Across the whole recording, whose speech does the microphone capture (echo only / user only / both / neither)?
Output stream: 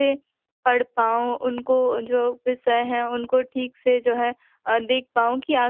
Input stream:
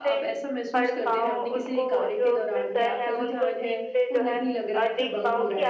both